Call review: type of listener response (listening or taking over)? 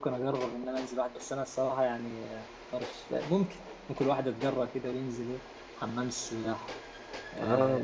listening